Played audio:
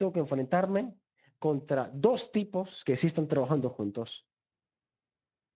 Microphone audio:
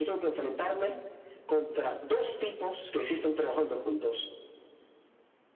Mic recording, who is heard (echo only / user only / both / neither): echo only